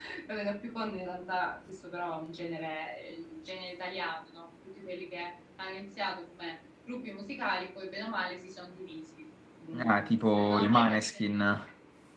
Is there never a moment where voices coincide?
No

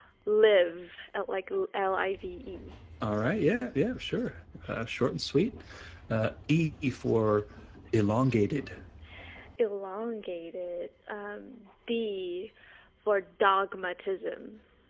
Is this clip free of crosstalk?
Yes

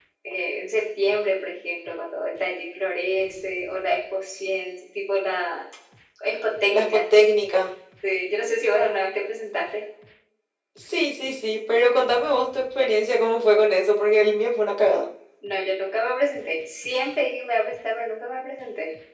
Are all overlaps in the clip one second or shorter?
Yes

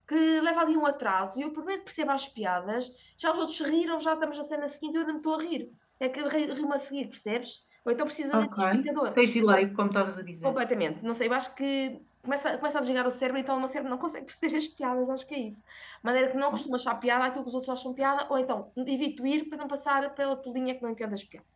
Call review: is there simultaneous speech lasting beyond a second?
No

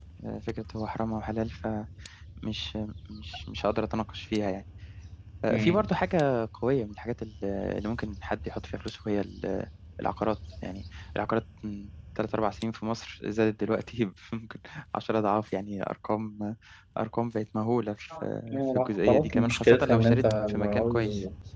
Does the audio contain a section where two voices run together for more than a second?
Yes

